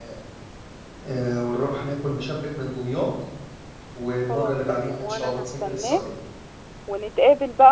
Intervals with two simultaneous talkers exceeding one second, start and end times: 4.3-6.0

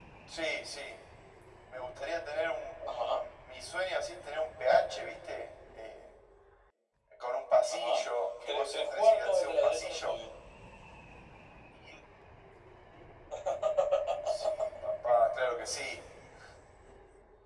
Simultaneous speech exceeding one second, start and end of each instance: 8.5-10.2

